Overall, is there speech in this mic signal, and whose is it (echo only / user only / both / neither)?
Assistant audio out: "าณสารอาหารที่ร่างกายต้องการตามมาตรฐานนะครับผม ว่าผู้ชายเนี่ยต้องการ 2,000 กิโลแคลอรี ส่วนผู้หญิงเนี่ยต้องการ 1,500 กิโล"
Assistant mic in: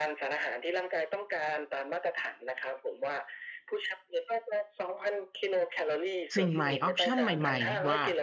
both